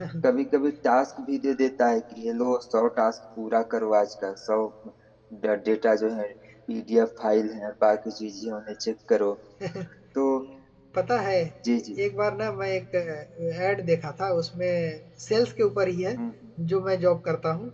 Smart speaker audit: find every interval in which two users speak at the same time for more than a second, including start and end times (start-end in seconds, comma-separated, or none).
none